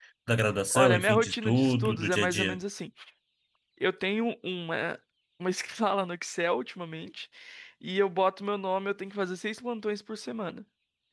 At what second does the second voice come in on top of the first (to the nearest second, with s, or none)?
1 s